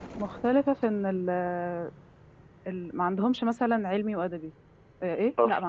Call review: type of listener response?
listening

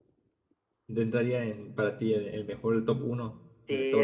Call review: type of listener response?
taking over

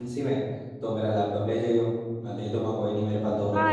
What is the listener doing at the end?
taking over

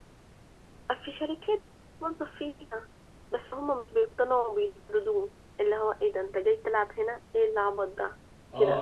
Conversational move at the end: taking over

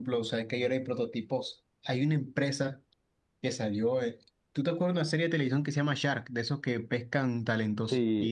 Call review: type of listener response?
listening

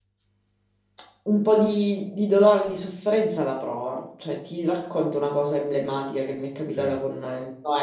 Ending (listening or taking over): listening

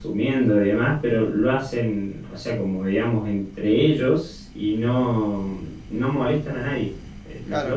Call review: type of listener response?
taking over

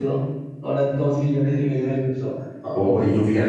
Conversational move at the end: taking over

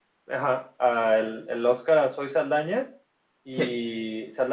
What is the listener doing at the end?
listening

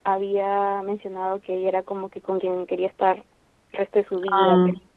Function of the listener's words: listening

